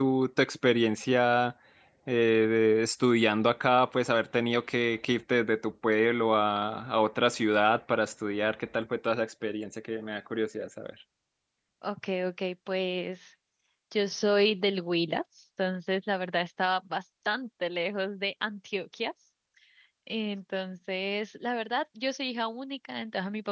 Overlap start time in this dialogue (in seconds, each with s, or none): none